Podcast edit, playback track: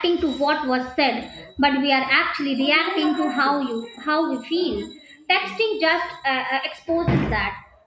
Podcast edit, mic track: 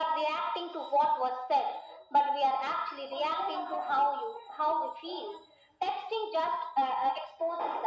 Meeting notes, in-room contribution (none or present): none